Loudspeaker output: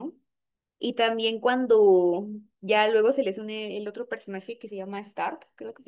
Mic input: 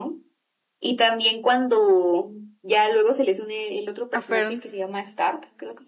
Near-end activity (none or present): present